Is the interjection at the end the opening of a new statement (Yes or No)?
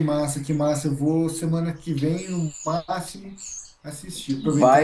No